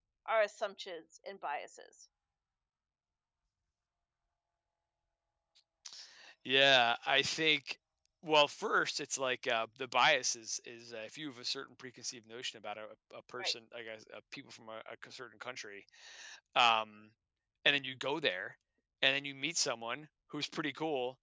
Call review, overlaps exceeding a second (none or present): none